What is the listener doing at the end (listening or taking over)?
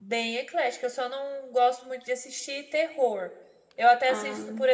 listening